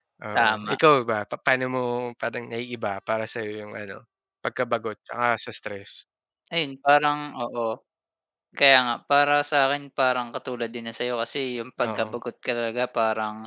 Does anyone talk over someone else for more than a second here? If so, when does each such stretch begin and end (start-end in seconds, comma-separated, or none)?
none